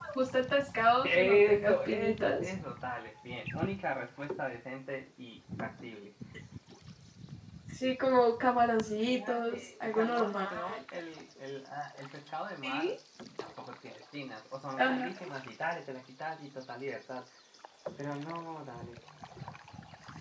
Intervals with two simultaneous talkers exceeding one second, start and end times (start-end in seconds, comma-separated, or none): 1.1-2.5, 8.9-10.5